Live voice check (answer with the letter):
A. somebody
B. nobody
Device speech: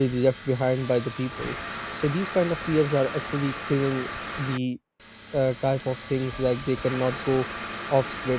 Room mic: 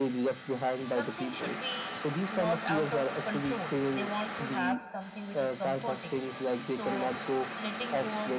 A